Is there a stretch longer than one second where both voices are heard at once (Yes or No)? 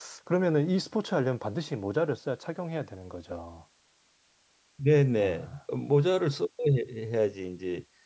No